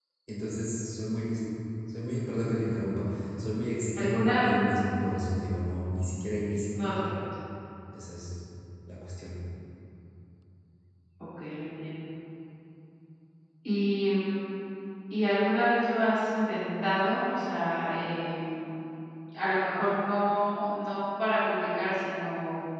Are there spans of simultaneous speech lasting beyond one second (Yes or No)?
No